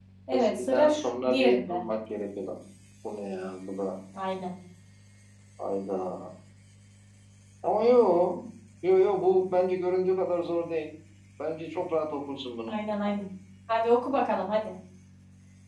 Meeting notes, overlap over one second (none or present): present